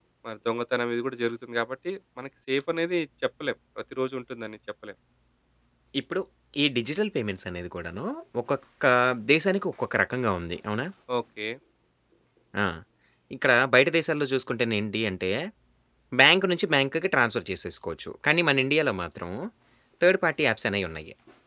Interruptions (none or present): none